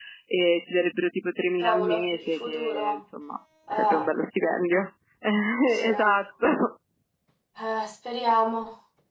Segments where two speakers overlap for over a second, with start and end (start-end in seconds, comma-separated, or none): 1.6-3.0